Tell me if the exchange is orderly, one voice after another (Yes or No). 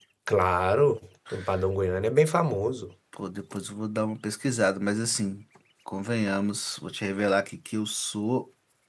Yes